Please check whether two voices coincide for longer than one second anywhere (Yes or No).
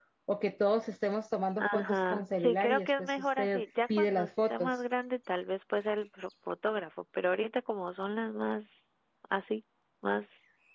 Yes